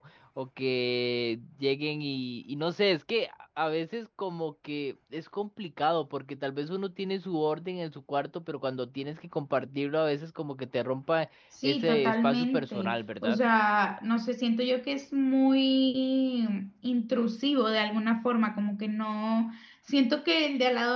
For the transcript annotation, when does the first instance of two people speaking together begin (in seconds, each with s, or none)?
11.5 s